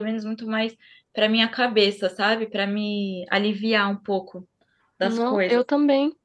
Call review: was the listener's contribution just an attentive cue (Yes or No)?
No